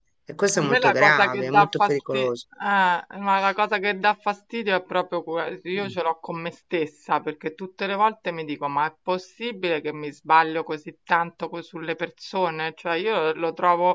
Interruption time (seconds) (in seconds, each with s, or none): 0.6 s